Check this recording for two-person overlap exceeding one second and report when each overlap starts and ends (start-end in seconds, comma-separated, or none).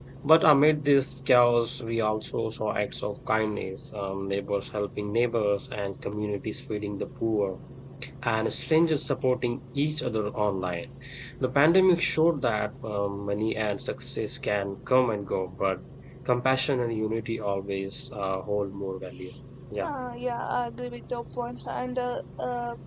none